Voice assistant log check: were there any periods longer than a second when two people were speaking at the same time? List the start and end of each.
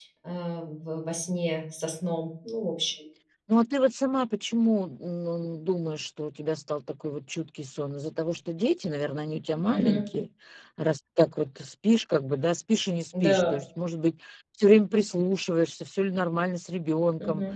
none

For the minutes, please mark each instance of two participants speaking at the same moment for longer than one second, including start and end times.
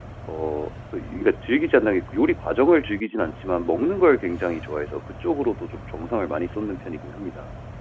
none

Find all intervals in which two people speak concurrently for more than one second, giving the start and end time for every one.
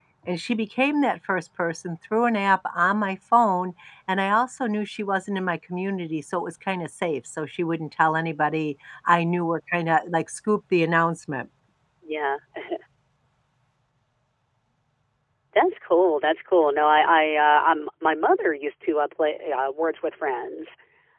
none

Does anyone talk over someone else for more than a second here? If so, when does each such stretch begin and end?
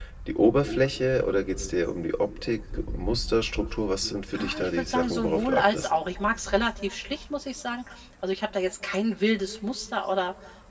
4.4-5.9

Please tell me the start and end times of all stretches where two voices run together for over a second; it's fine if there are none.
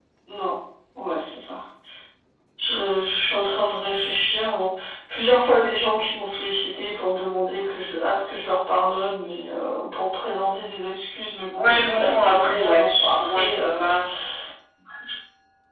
11.6-13.9

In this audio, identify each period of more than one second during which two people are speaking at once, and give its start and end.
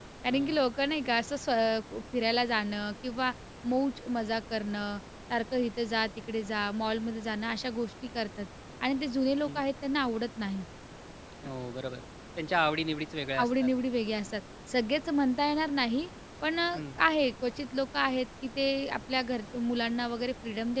none

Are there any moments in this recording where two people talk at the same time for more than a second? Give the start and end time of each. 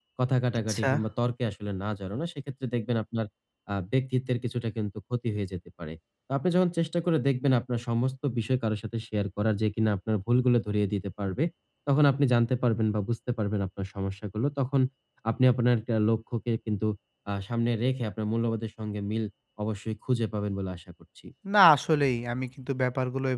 none

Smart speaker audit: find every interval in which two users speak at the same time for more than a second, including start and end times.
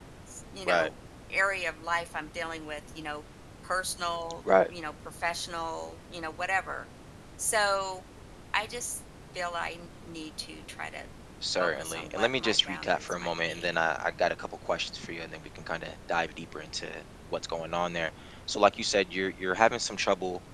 11.6-13.7

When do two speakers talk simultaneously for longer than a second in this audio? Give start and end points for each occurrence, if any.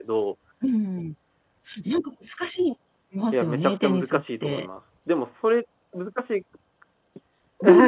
3.3-4.7

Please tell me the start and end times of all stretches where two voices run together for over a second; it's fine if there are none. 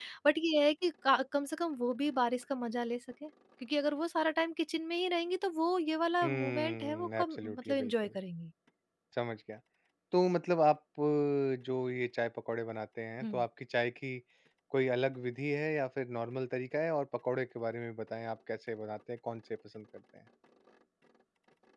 6.2-8.1

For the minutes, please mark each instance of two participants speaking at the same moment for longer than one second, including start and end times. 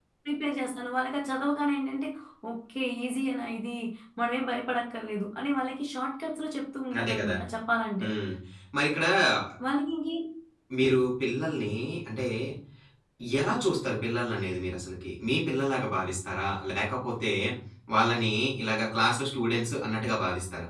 none

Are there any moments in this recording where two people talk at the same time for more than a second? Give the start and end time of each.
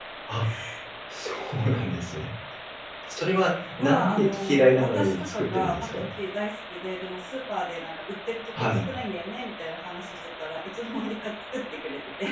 3.8-6.0

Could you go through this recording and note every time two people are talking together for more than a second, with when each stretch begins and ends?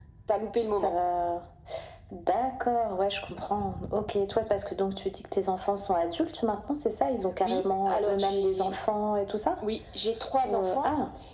7.4-8.8

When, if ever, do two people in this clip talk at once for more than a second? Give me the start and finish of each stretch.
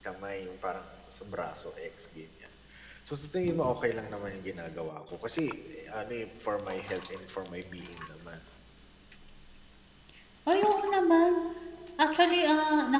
none

